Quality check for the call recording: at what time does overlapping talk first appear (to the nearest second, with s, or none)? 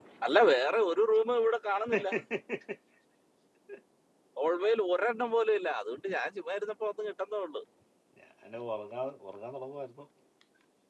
none